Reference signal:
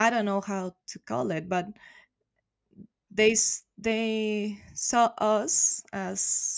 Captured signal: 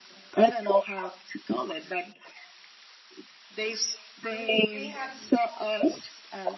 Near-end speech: present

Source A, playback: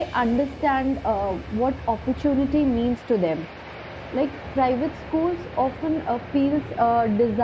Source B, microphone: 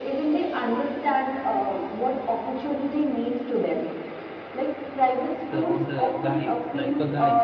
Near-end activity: present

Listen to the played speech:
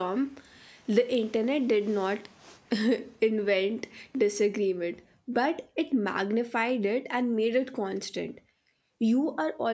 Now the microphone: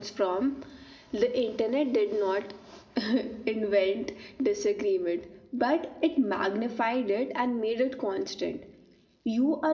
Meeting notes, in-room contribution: none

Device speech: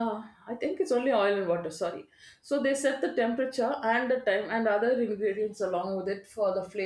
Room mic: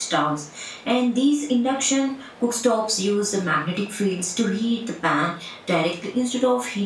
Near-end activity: present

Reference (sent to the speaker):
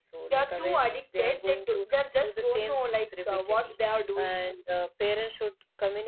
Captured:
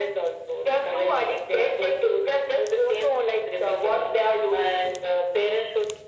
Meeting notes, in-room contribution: none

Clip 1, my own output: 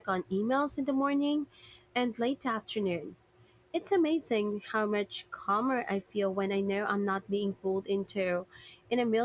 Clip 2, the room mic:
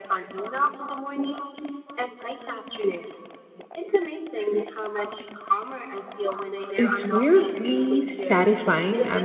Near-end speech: present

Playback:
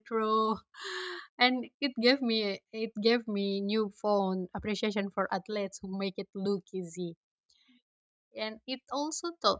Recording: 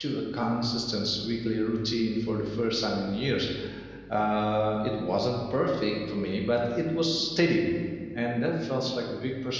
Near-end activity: present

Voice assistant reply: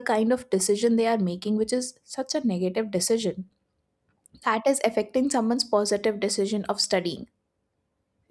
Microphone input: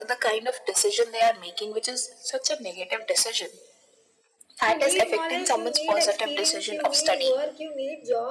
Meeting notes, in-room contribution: present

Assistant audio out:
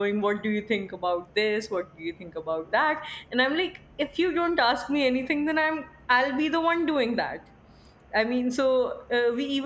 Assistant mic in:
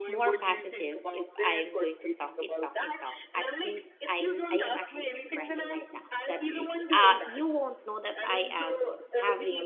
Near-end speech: present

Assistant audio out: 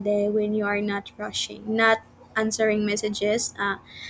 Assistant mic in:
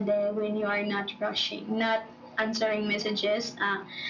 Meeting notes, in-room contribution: none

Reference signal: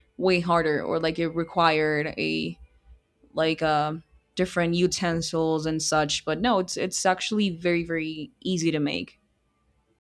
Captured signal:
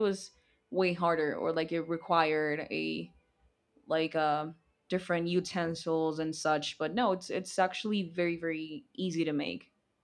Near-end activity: none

